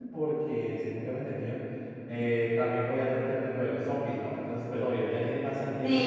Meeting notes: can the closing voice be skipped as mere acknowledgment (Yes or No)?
No